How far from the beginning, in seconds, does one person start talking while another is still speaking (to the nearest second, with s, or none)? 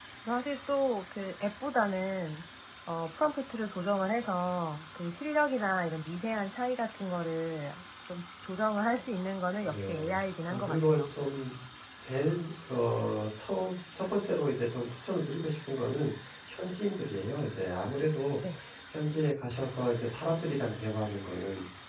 10 s